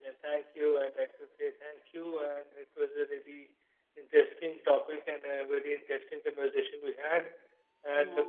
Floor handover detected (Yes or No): No